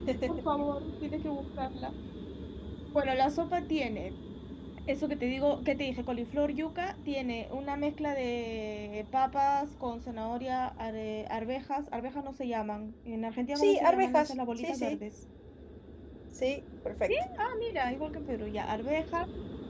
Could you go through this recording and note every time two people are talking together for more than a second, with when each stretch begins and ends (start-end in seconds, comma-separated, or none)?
13.6-15.0